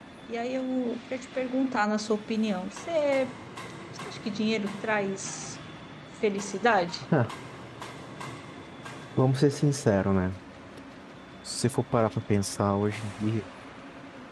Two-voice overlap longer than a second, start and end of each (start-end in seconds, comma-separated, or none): none